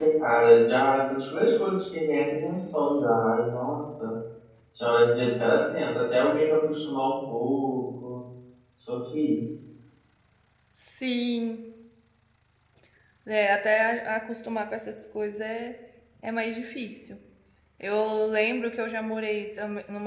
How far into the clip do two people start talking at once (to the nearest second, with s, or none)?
none